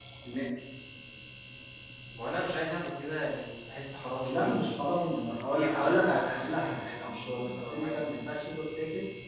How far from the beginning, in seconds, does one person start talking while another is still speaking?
4.2 s

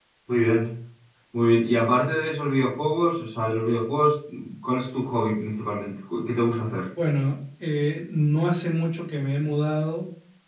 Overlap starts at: none

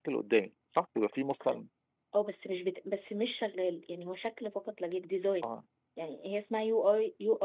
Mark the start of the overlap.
none

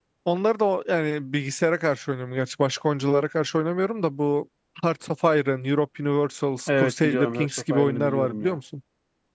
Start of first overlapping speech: 6.7 s

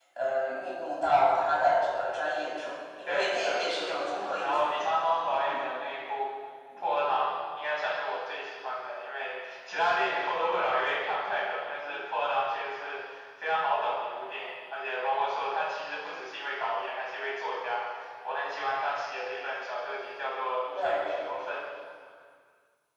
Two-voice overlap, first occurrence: 3.1 s

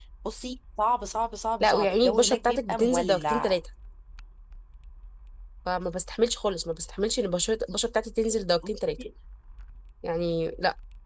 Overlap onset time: 1.6 s

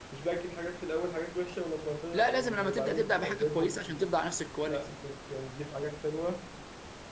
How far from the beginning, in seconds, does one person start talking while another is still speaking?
2.1 s

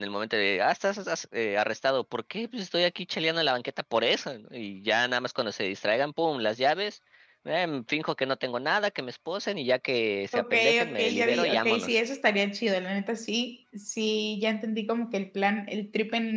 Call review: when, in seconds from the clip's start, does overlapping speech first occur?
10.3 s

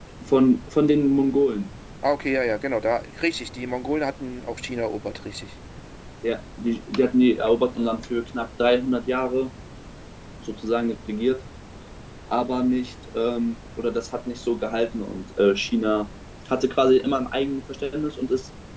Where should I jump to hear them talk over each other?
none

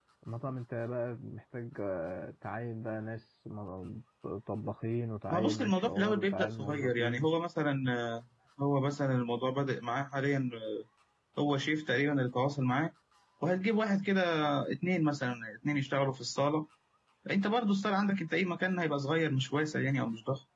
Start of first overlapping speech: 5.3 s

